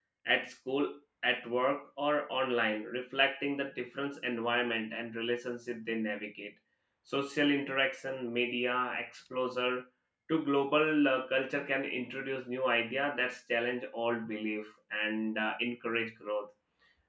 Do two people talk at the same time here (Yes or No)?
No